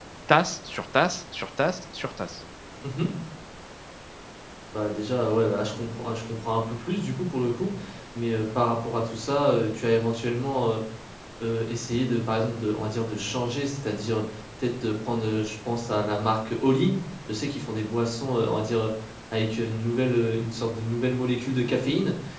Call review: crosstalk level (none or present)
none